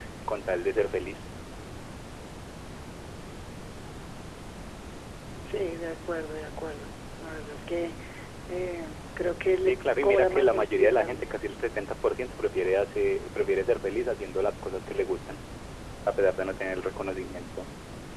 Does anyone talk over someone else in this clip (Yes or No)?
Yes